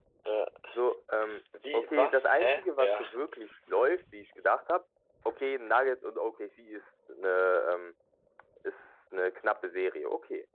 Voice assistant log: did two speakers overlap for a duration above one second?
Yes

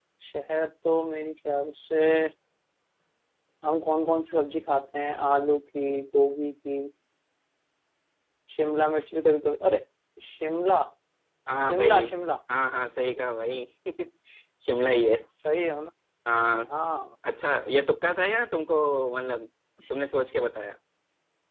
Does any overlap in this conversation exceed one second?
No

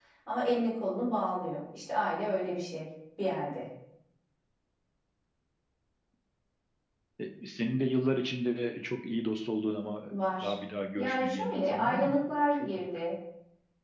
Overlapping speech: Yes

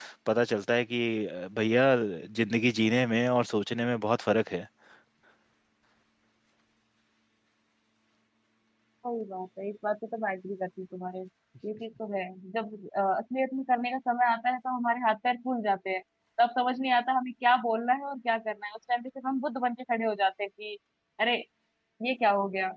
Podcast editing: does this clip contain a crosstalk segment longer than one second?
No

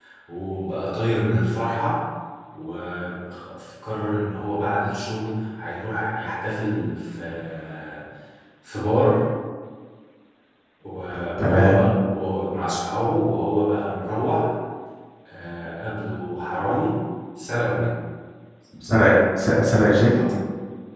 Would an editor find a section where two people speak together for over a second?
No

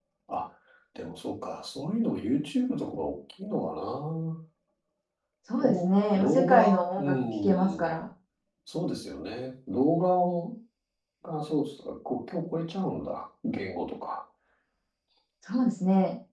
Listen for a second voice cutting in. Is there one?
Yes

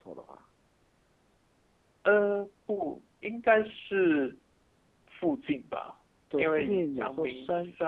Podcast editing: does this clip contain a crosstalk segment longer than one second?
Yes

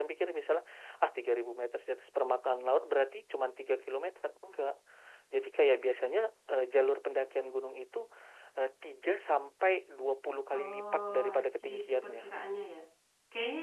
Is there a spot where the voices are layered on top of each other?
Yes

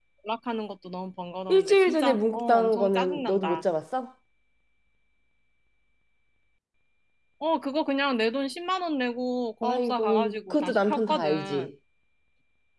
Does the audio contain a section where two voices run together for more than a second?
Yes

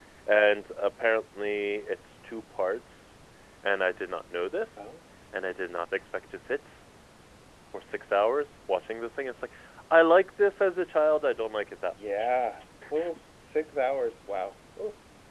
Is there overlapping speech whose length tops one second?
No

